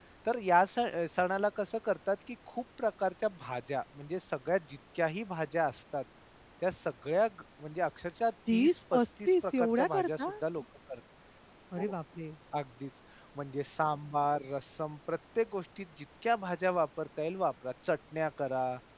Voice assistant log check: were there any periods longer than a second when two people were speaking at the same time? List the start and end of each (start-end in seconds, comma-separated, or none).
8.5-10.3